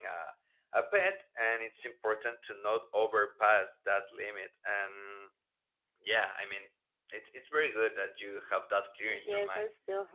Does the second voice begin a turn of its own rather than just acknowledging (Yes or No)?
Yes